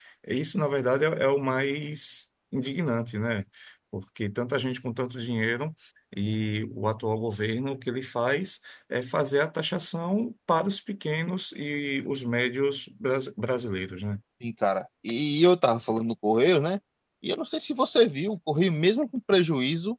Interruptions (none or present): none